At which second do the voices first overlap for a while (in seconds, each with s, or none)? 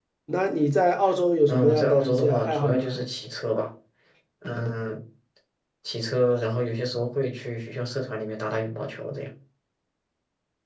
1.5 s